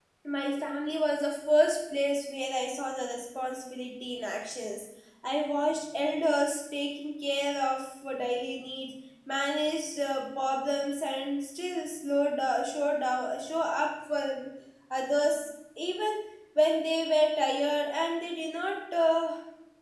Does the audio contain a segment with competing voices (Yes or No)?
No